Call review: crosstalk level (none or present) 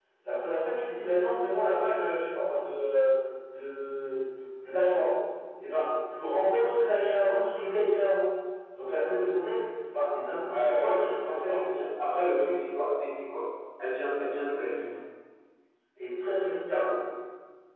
present